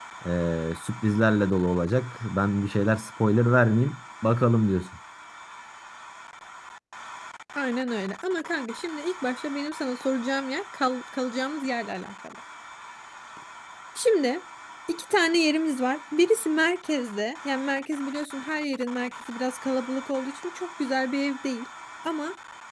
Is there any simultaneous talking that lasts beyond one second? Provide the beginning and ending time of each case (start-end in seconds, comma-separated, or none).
none